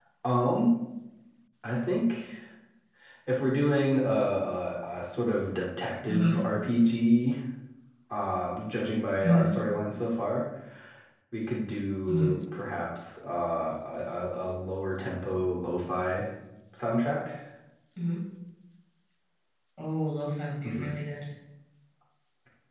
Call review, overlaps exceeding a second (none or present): none